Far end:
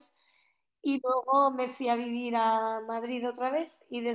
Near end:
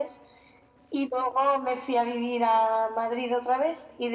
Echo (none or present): present